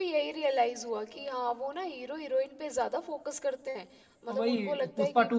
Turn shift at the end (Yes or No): Yes